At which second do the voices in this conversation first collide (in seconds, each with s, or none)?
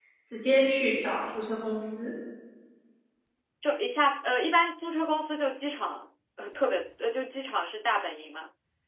none